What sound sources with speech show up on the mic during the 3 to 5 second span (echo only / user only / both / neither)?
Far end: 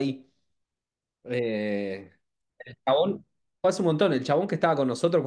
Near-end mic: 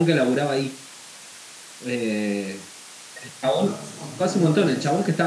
both